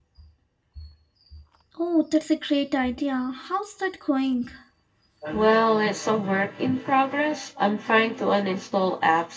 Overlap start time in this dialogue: none

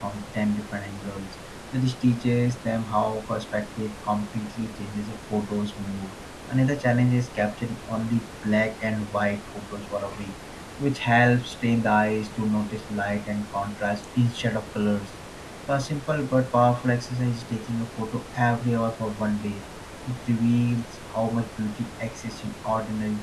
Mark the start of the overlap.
none

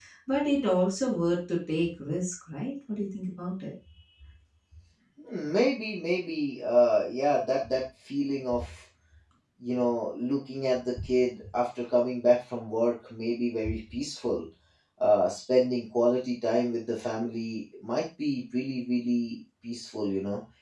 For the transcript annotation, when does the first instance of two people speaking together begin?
none

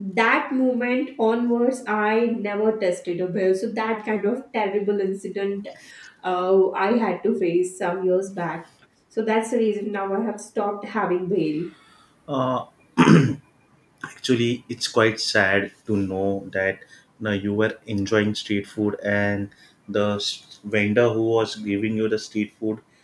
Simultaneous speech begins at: none

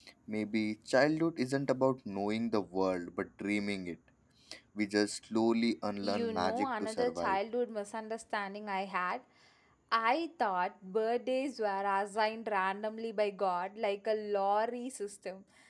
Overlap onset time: 6 s

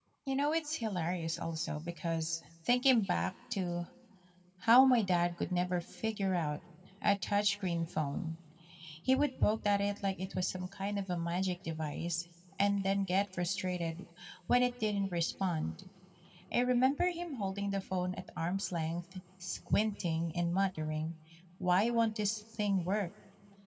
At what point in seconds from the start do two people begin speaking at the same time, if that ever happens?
none

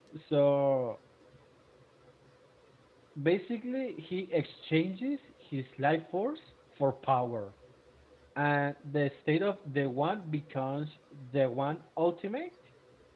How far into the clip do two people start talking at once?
none

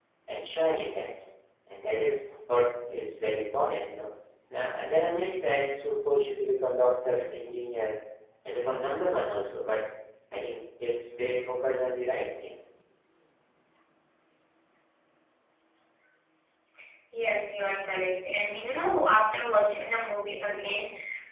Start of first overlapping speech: none

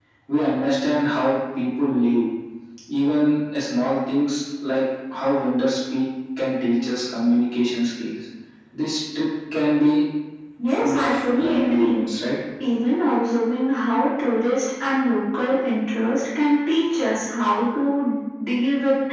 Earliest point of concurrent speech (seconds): 11 s

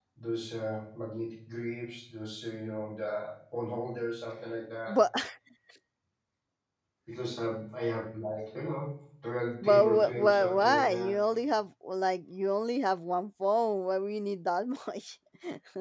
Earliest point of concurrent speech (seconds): 10 s

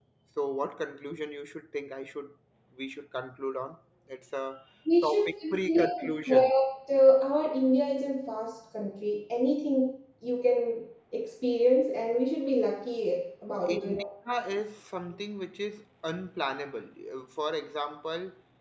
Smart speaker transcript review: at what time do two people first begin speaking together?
5 s

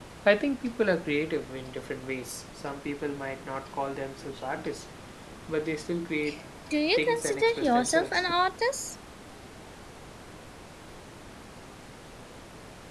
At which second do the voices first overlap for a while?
7 s

